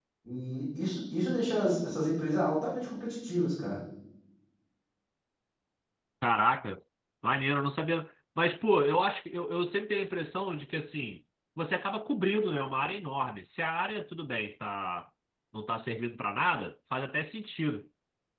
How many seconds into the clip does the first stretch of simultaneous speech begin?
none

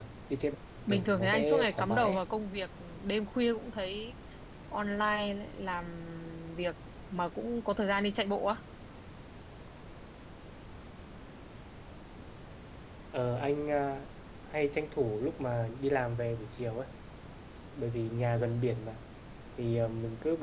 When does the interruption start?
1 s

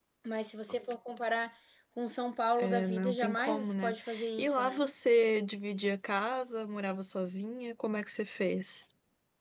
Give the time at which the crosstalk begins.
3 s

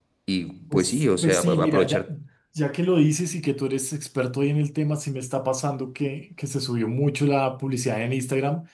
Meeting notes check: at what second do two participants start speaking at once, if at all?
1 s

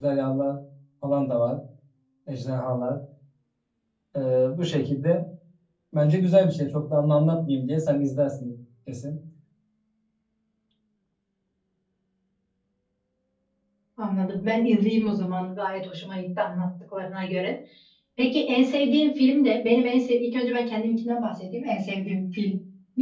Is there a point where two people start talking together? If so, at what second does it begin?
none

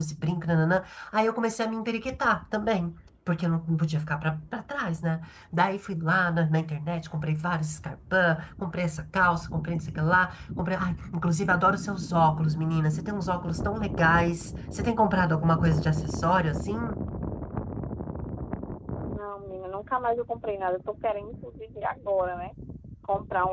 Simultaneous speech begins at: none

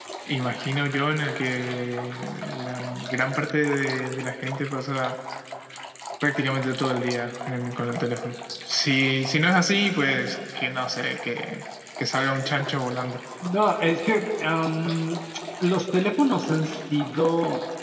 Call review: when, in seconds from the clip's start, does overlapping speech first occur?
none

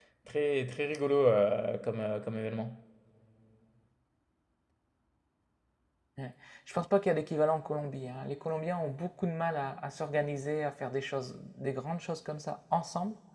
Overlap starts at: none

